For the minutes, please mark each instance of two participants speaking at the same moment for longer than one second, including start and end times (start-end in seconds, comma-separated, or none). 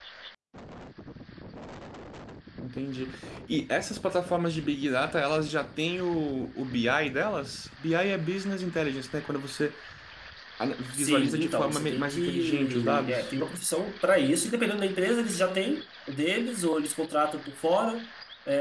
10.9-13.3